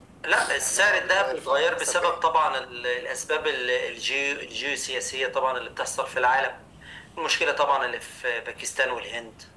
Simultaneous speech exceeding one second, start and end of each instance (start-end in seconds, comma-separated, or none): 0.6-2.2